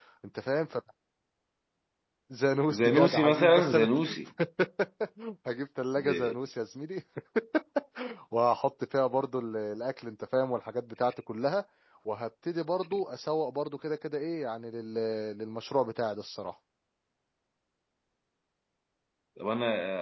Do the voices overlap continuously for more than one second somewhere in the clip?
Yes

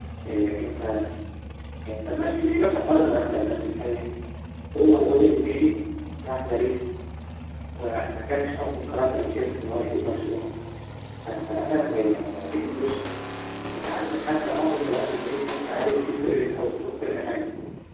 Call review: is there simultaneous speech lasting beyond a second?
No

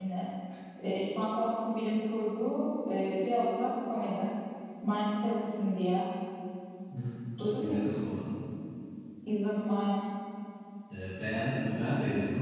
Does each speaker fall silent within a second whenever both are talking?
Yes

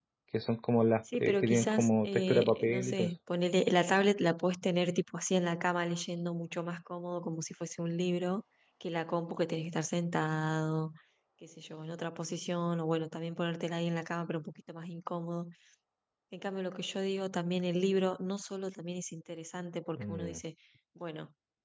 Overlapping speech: Yes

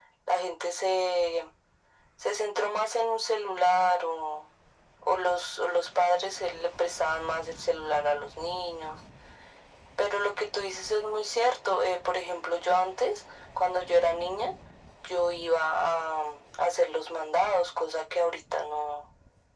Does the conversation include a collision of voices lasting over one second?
No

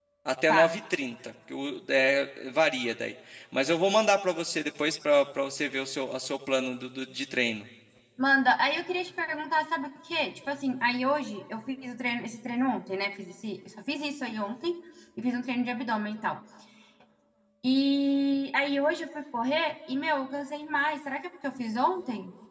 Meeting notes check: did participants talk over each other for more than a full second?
No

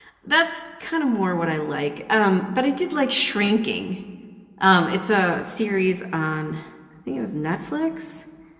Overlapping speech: No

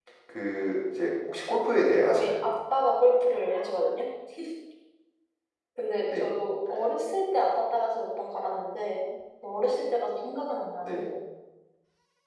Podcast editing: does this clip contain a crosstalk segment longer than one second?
No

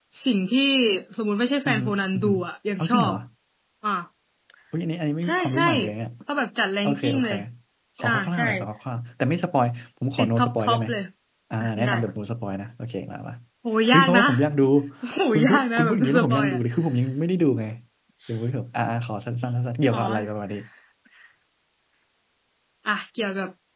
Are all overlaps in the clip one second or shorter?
No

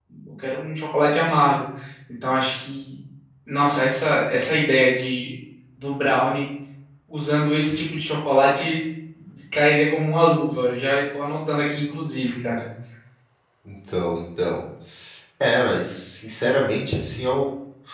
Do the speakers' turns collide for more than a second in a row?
No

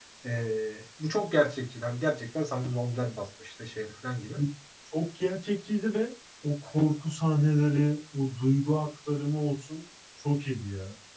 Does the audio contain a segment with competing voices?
No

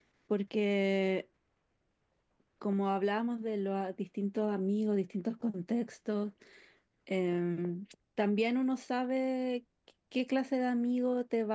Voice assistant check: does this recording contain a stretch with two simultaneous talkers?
No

